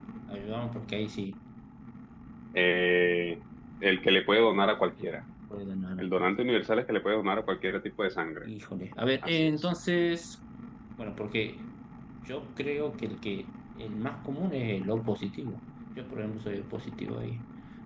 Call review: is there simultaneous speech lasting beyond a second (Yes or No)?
No